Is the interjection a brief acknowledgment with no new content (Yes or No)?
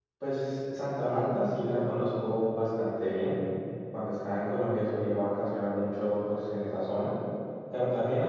Yes